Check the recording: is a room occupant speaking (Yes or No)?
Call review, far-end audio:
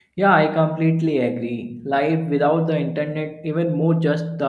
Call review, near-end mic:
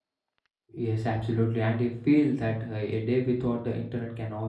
Yes